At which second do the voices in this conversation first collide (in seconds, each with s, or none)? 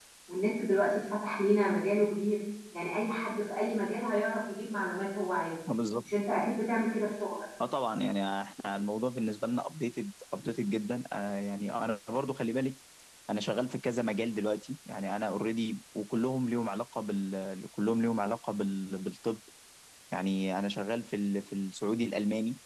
none